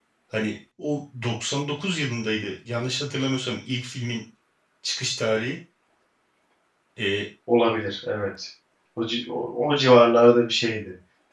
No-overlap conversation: Yes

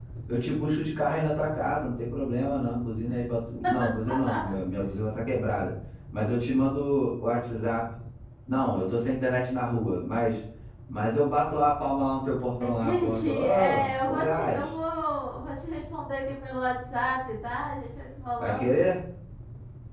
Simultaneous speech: Yes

